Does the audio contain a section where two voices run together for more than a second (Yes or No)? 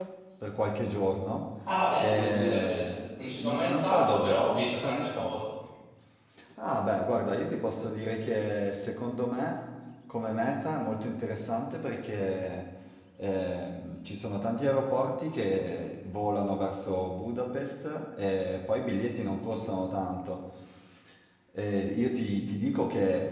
Yes